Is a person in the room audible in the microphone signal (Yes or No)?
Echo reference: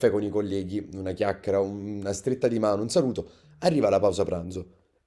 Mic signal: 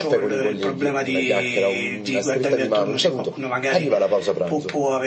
Yes